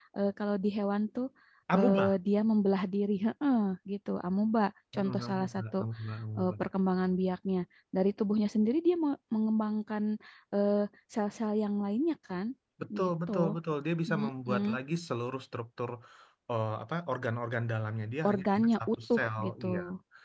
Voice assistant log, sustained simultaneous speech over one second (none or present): present